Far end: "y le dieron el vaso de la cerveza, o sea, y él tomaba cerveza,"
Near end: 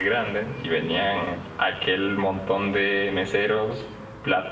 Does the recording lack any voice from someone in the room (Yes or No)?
No